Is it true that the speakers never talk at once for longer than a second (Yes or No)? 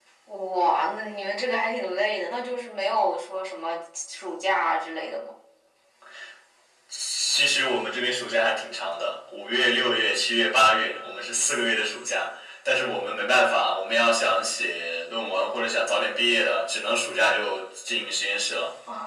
Yes